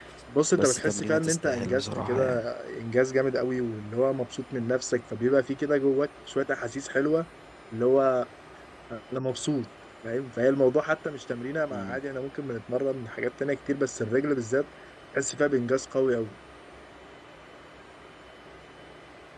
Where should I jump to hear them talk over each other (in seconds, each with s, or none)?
0.5 s